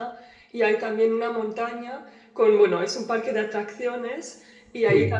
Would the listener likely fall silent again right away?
Yes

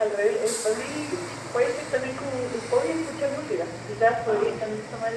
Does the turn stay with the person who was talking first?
Yes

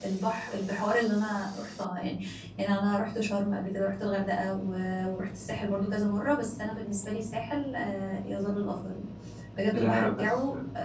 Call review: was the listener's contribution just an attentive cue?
Yes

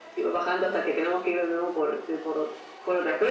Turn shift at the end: No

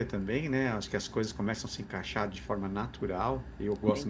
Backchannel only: Yes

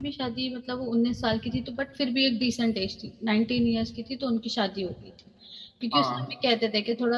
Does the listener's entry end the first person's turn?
No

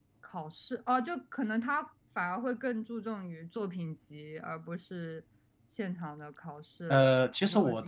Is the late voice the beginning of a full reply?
Yes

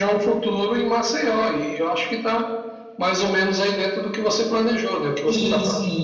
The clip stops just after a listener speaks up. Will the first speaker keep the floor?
No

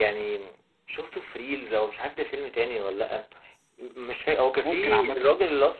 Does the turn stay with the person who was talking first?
Yes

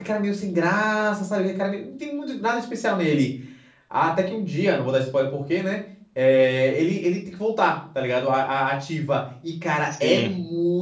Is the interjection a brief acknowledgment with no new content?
Yes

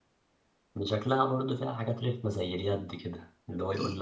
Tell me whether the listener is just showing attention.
Yes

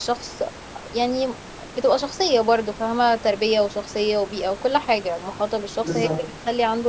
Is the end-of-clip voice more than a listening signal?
No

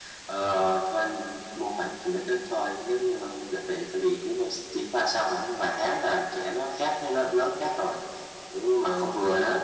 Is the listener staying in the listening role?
No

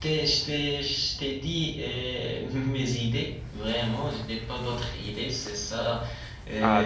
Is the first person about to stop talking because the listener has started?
Yes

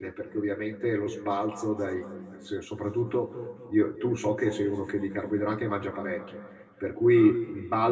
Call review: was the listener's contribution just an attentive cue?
Yes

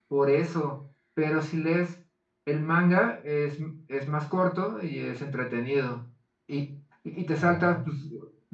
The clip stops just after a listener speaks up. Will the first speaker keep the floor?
Yes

